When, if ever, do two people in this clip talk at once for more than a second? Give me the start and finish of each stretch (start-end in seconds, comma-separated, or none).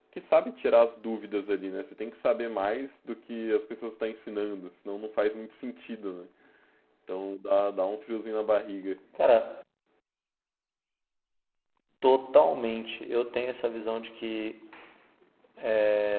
none